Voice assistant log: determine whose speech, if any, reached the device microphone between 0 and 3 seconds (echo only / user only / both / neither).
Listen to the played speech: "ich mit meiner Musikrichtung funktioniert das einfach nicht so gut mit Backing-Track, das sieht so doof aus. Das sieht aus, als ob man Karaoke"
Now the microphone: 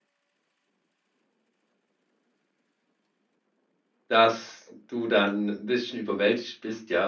neither